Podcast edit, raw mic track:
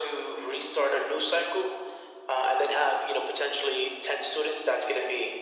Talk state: echo only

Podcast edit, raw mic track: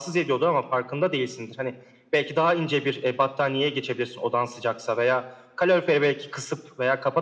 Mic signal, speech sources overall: echo only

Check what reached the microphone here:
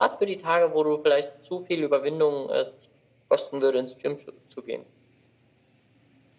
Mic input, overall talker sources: echo only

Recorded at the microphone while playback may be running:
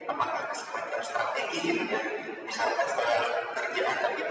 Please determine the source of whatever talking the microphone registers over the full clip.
echo only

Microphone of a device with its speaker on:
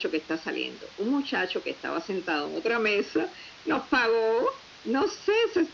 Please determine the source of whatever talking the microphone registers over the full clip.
echo only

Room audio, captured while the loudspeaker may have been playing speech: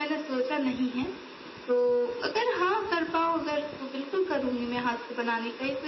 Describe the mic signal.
echo only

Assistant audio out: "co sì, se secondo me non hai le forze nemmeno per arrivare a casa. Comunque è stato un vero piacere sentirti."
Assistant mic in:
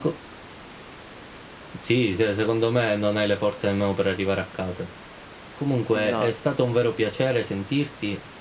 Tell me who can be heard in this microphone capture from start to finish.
both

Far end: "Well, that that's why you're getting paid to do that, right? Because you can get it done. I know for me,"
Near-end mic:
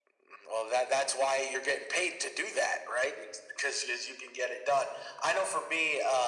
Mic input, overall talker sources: echo only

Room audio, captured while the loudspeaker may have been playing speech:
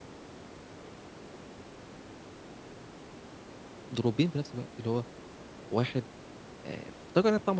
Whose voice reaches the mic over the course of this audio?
user only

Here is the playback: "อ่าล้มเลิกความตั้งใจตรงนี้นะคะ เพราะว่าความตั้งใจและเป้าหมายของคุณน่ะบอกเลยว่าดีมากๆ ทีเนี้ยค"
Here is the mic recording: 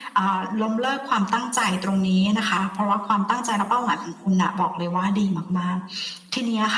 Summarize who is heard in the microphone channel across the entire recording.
echo only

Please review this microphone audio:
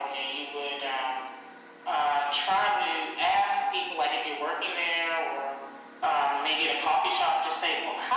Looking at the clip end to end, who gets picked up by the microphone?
echo only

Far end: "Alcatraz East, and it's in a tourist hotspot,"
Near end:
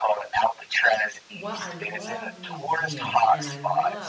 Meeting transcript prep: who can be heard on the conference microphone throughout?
both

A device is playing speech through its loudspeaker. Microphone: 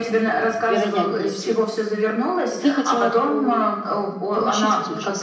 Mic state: both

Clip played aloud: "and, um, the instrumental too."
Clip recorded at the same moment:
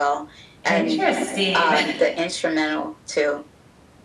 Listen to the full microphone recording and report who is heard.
both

